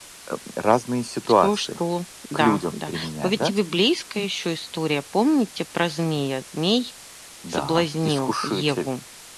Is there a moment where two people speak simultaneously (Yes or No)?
Yes